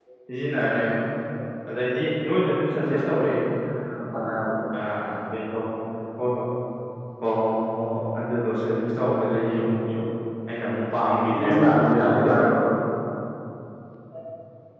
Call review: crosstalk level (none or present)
present